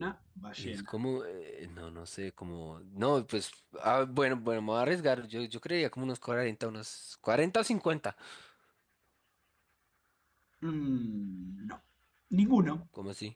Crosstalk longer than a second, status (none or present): none